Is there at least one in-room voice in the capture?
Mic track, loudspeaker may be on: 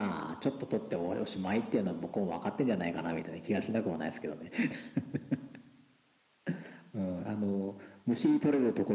No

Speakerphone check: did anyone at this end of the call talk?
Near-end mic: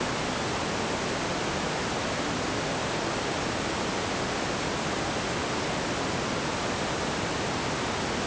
No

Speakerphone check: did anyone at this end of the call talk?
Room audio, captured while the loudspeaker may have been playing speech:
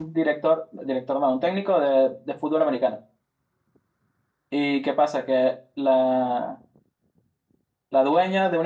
Yes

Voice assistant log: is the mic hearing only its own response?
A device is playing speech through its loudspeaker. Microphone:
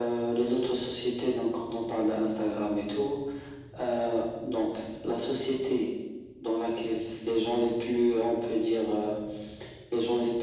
Yes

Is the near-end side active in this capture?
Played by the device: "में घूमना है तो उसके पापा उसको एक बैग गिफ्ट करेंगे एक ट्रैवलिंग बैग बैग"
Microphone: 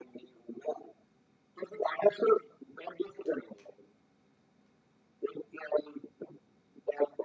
No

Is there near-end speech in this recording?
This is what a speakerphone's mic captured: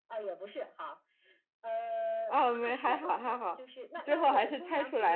Yes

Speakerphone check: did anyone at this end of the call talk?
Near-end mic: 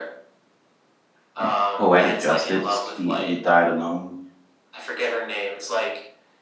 Yes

